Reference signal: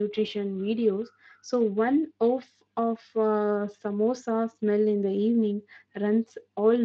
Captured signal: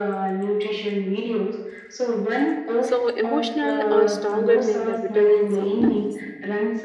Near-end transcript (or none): So emotional are stronger than the vitamins sometimes.